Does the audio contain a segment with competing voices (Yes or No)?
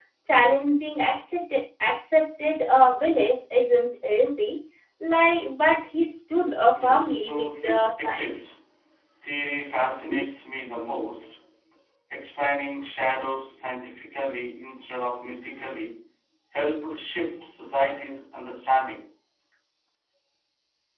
Yes